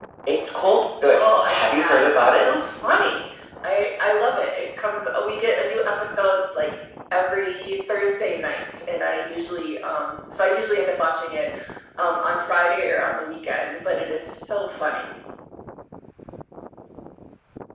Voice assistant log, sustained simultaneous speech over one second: present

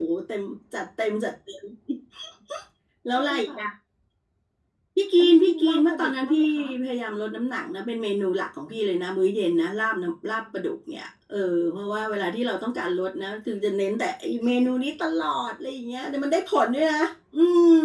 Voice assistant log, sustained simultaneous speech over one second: present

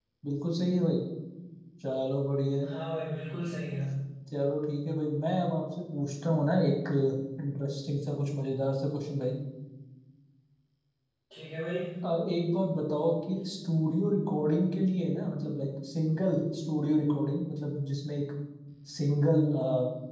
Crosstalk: none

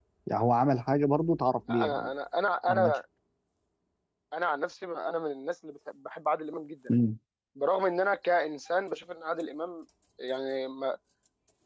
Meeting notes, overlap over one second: none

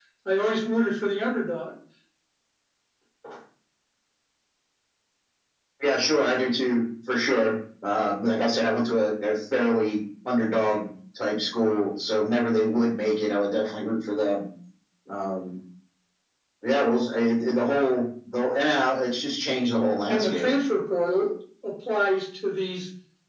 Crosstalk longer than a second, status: none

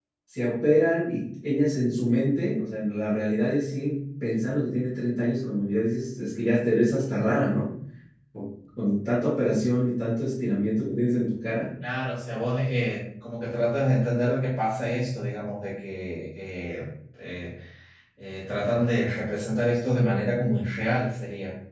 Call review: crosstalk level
none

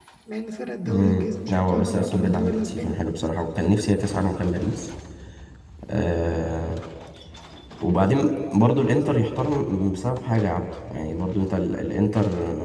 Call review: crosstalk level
present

